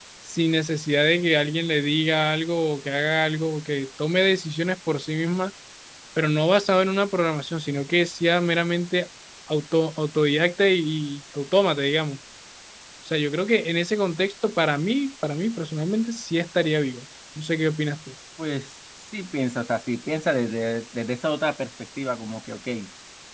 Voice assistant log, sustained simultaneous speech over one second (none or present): none